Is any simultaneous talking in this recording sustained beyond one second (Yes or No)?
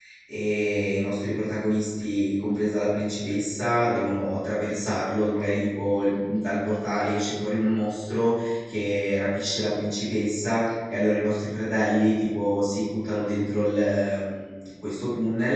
No